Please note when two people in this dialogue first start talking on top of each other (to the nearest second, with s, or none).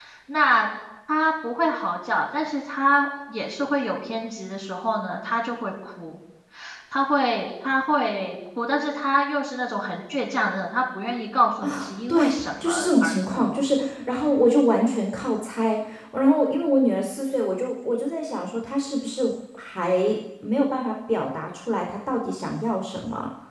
12 s